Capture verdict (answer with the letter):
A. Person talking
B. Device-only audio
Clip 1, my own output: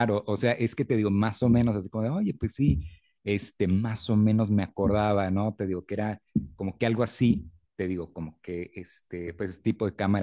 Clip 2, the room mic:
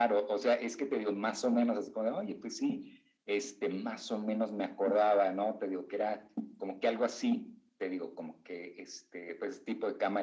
B